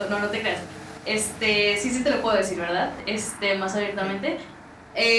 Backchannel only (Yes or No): Yes